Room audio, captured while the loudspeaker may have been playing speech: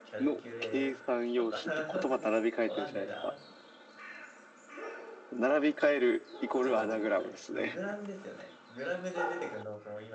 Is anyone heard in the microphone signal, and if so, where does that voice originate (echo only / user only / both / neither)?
both